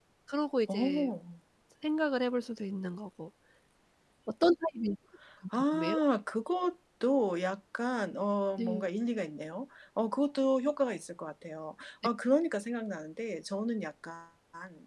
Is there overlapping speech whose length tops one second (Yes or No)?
No